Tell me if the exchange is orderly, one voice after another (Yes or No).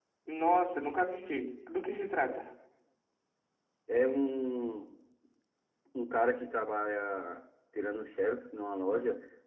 Yes